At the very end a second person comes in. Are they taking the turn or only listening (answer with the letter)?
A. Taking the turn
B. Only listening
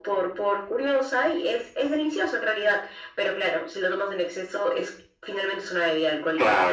A